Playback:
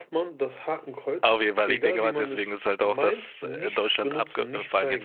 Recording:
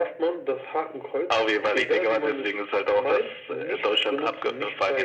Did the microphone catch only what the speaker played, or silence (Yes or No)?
Yes